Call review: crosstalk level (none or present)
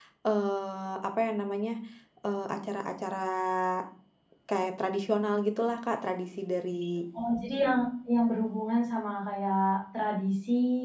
none